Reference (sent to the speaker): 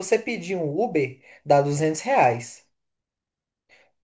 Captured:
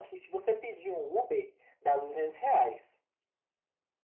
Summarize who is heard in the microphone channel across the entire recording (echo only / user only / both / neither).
echo only